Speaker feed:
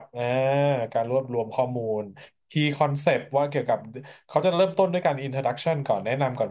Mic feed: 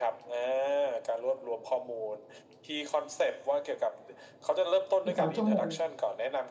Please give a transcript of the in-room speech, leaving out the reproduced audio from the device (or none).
สิบสองชั่วโมง